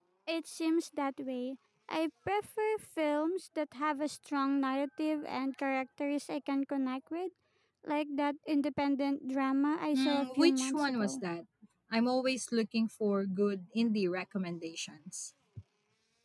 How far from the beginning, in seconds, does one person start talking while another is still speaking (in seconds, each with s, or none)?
9.9 s